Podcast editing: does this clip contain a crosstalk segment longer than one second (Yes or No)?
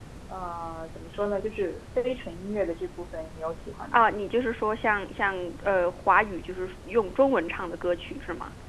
No